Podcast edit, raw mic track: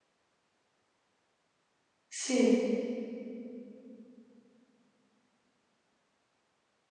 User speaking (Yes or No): Yes